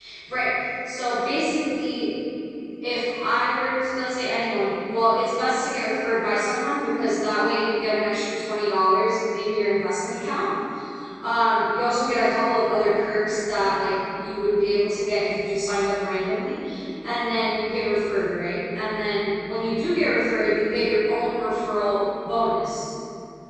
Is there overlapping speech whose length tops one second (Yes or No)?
No